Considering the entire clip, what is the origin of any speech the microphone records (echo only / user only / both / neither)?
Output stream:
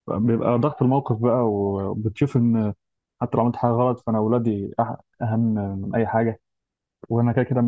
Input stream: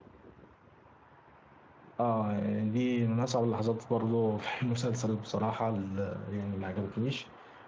user only